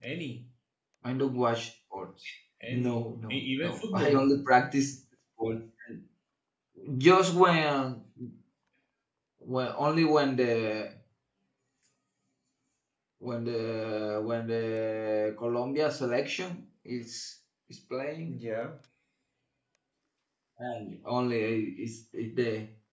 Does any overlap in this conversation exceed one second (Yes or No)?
Yes